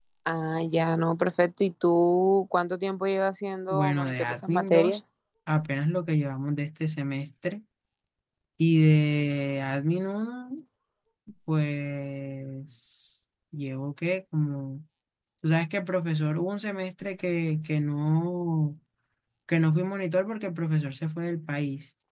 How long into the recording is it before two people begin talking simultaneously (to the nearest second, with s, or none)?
4 s